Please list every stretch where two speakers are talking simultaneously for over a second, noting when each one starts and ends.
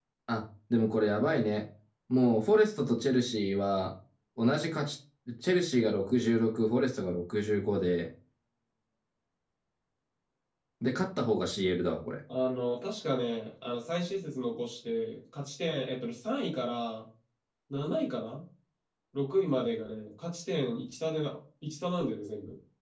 none

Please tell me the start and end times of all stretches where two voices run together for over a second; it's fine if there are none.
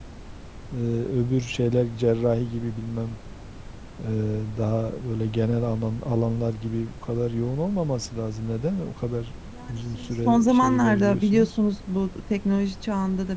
9.7-11.5

